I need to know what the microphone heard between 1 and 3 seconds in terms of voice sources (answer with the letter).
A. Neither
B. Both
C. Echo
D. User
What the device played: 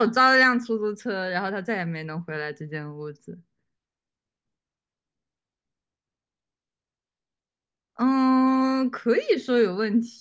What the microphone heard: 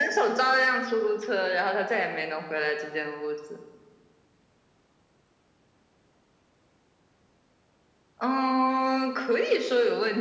C